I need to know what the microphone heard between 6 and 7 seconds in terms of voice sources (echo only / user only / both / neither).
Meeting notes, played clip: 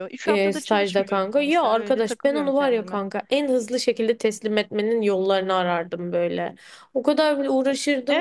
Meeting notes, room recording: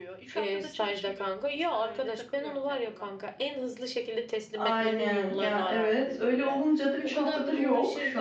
both